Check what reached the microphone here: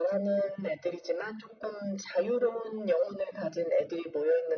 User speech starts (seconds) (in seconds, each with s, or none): none